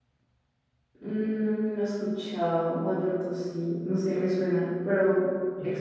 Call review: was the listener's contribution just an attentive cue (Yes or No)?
No